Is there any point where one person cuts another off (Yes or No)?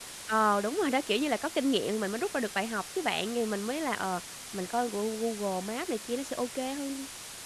No